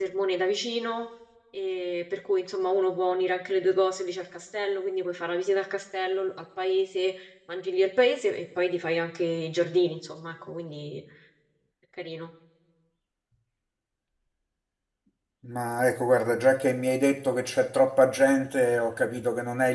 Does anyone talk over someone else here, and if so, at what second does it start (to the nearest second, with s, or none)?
none